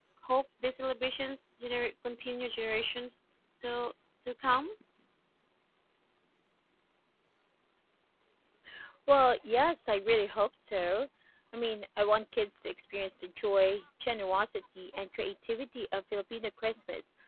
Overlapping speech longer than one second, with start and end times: none

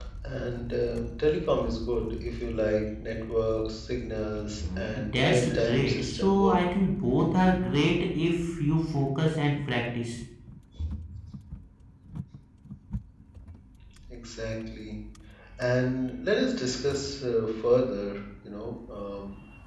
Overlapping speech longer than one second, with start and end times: 4.6-6.5

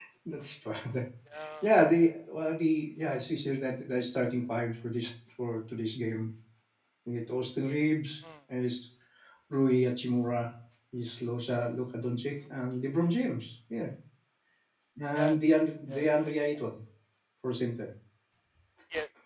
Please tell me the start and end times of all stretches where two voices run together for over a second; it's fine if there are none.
15.2-16.6

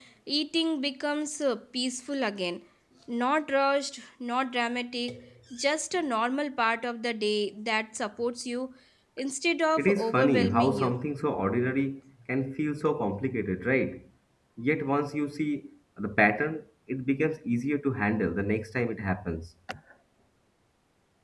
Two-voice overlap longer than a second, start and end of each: 9.8-11.0

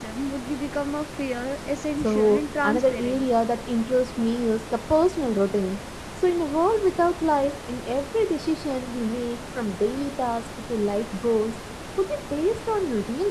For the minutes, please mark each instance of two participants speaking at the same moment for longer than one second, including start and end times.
2.0-3.3

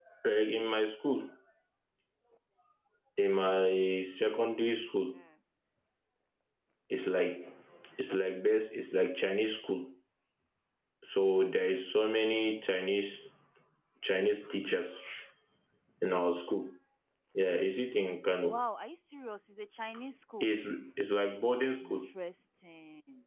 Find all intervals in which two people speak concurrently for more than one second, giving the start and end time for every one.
none

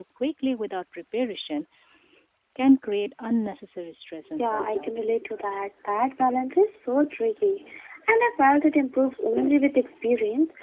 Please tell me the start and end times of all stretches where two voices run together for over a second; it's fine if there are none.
none

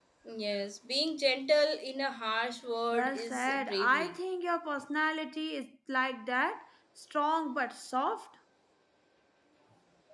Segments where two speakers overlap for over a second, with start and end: 2.9-4.2

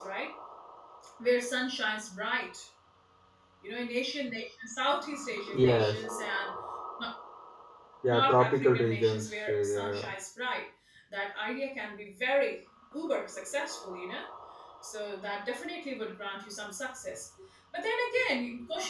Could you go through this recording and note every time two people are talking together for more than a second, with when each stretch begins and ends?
8.1-10.0

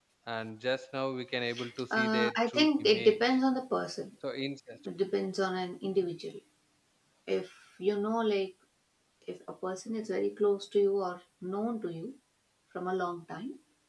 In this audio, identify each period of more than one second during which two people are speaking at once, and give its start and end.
1.9-3.2

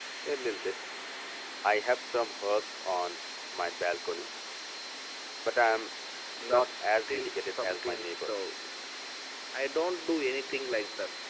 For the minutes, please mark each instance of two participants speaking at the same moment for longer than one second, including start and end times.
6.4-8.3

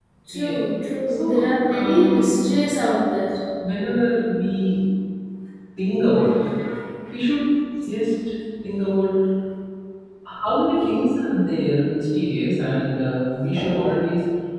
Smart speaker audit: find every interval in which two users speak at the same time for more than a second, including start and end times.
1.1-2.4

